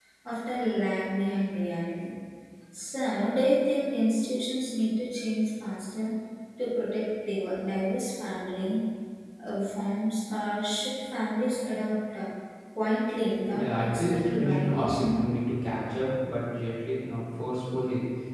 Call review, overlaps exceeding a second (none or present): present